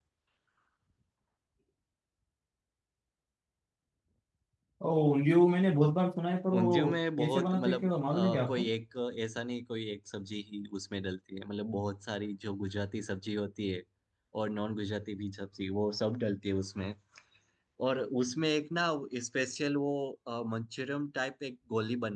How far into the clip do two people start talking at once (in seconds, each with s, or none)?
6.5 s